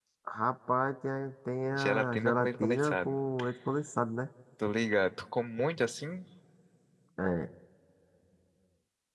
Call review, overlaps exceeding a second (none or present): present